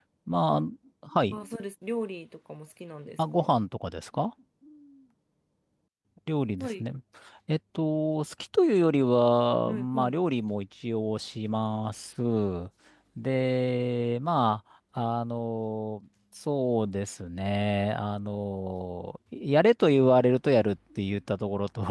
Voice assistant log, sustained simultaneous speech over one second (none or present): none